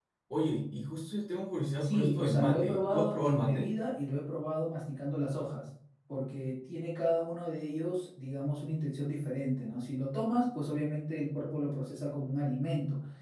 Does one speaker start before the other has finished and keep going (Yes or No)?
Yes